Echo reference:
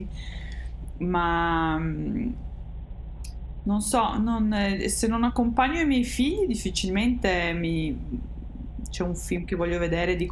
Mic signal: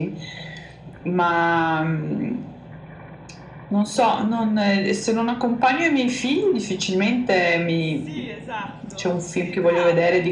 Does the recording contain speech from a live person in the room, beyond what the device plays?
Yes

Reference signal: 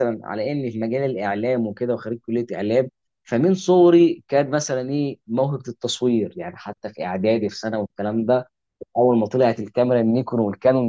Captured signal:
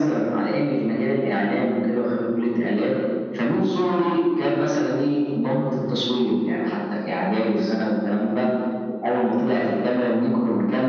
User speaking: No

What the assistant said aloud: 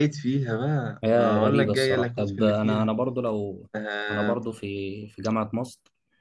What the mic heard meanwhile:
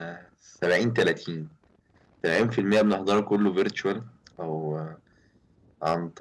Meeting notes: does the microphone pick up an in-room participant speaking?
Yes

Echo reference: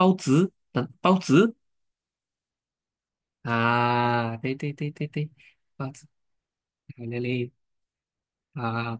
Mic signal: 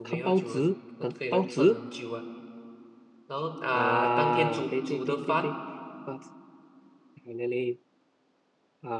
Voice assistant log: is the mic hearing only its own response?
No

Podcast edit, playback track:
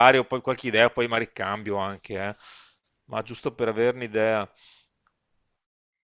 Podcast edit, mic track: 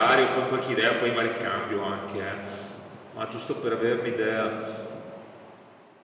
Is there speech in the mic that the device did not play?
No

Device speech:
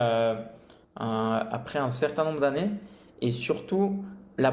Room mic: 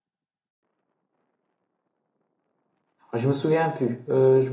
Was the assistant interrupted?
Yes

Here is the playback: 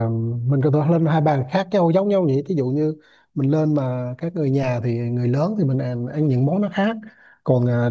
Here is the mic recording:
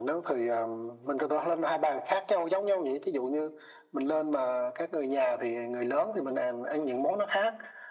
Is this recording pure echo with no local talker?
Yes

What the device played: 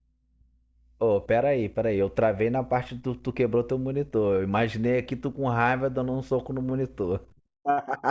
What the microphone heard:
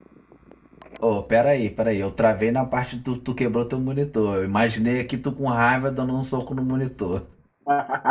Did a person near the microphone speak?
No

